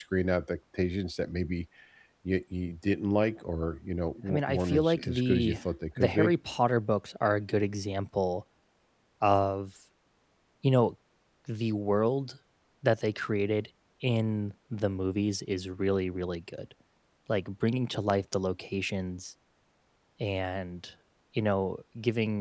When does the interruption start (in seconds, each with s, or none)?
4.3 s